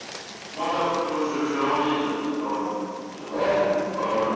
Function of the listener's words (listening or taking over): taking over